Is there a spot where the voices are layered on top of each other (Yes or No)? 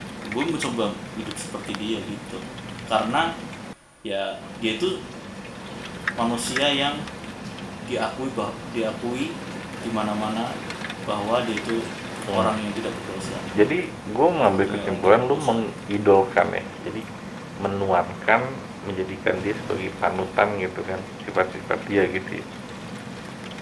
Yes